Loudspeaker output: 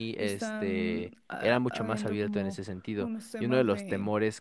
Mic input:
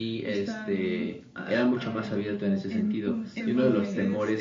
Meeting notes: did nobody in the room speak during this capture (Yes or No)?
No